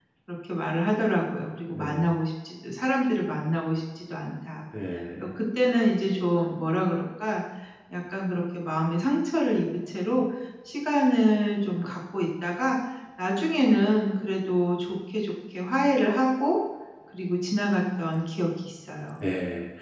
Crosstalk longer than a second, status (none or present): none